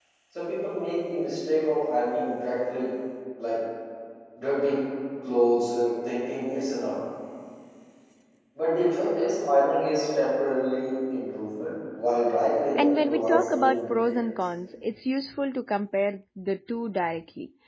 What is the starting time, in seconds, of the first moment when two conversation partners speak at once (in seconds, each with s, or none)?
12.8 s